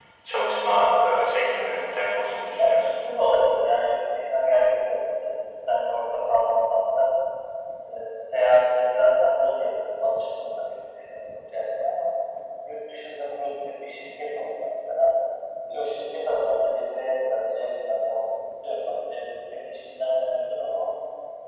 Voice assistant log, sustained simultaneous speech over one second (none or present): none